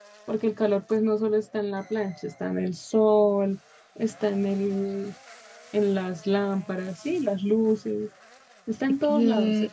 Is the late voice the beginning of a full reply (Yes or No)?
Yes